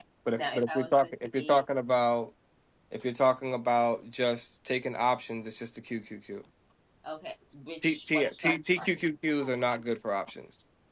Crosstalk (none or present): present